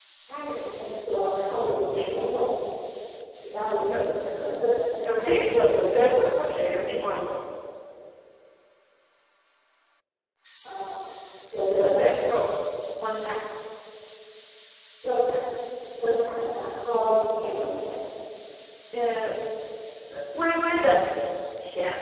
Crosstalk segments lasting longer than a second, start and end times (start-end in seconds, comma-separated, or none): 5.0-6.3